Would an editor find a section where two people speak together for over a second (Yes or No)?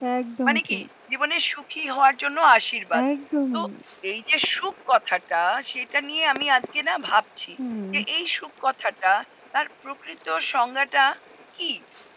No